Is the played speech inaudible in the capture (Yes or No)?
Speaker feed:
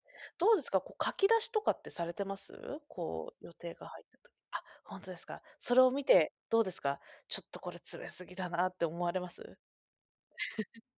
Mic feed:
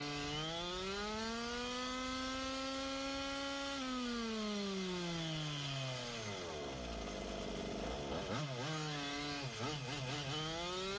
Yes